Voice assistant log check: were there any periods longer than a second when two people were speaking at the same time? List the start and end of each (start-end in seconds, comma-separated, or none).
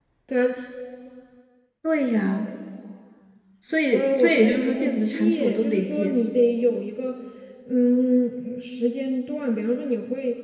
3.9-6.2